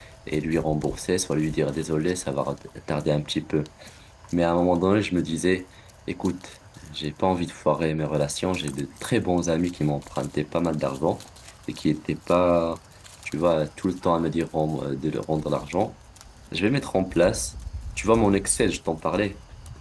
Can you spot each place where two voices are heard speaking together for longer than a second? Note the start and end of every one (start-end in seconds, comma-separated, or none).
none